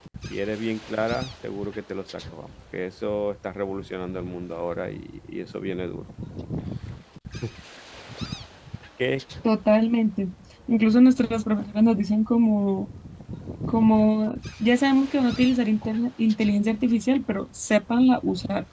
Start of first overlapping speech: none

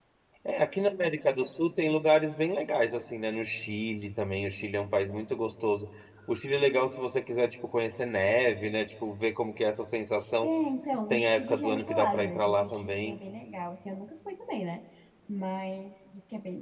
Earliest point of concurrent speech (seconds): 11 s

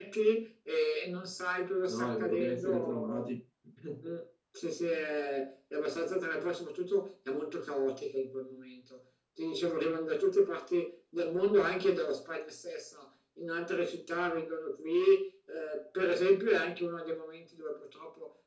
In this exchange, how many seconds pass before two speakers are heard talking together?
2 s

